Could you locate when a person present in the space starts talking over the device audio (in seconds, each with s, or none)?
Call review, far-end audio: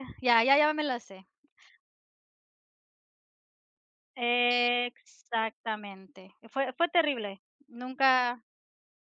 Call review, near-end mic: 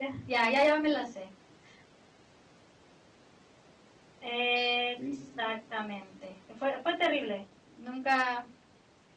5.0 s